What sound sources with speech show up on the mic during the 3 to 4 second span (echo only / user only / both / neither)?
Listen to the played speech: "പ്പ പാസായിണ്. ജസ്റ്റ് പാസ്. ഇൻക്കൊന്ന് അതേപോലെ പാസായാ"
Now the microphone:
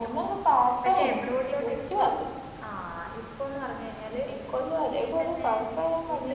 user only